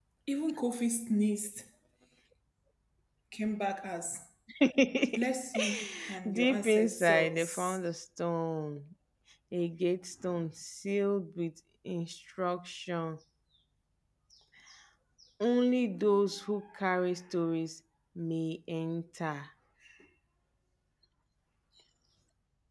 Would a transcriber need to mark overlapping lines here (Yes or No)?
Yes